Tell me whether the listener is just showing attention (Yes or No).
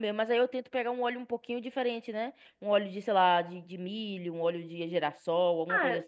No